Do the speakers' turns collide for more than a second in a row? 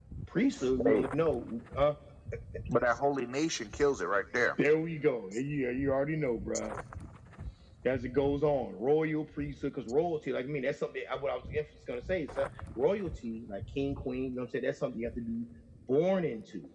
No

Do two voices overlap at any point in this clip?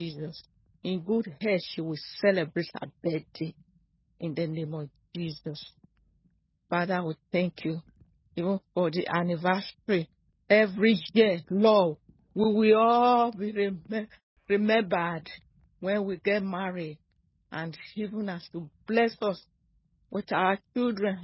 No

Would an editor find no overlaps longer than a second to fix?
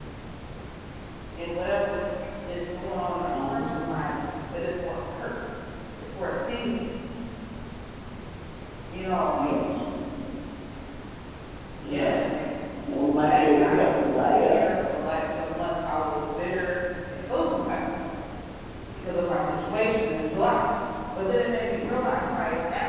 No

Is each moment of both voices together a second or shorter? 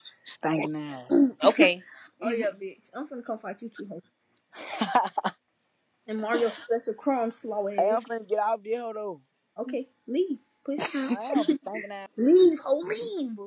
Yes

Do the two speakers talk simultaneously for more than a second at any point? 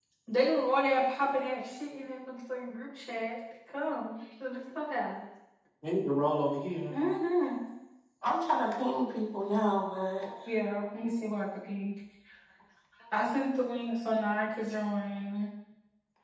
No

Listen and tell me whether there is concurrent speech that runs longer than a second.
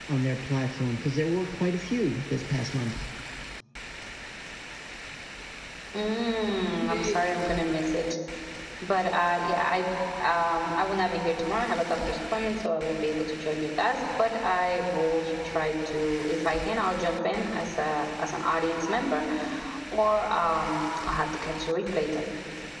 No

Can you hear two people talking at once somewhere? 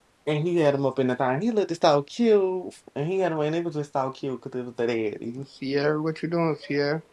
No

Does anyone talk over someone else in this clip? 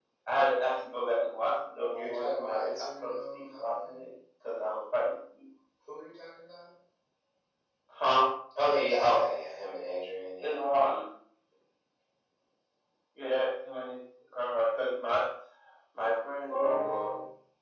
Yes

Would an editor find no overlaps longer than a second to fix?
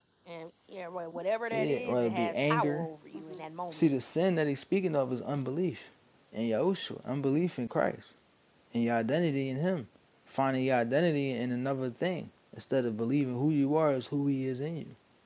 No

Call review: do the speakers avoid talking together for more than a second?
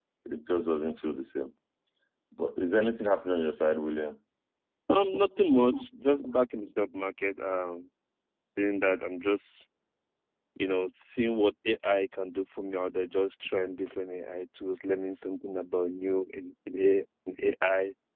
Yes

